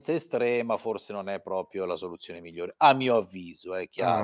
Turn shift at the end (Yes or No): Yes